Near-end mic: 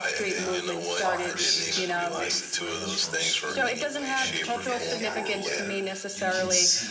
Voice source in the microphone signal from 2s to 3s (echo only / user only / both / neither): both